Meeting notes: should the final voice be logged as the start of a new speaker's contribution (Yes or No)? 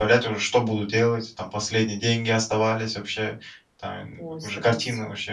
No